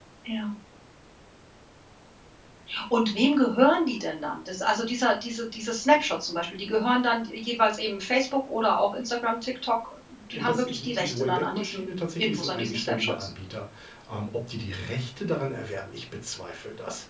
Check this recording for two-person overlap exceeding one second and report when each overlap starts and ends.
10.3-13.3

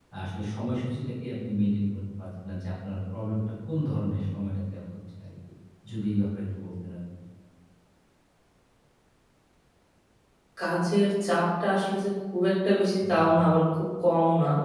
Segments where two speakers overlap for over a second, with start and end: none

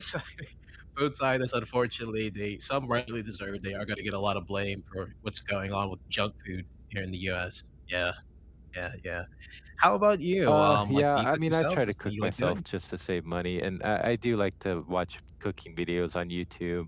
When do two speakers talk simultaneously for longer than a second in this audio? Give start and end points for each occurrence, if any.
10.5-12.6

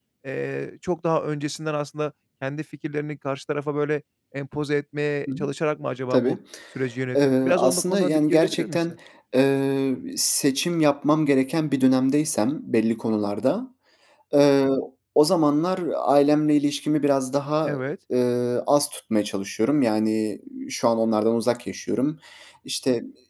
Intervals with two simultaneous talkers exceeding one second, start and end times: 7.2-8.8

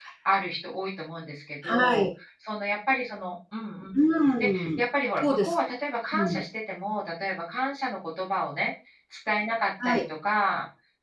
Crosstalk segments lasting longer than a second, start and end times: none

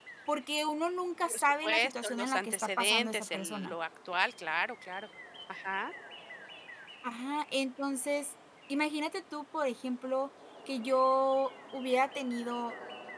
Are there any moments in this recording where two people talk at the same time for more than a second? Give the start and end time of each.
1.2-3.7

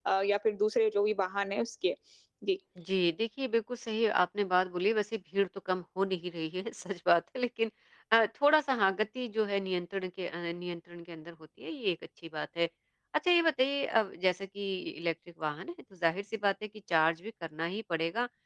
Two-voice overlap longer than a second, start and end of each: none

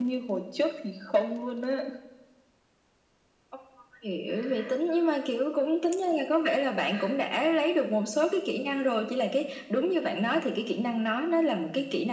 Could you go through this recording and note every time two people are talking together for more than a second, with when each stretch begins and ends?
none

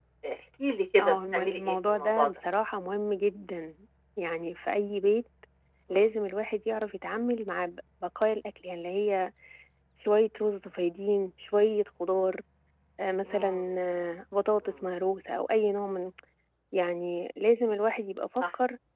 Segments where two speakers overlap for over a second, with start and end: 1.0-2.3

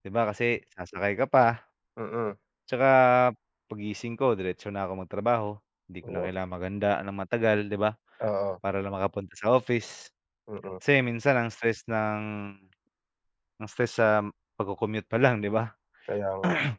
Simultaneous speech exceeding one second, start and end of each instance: none

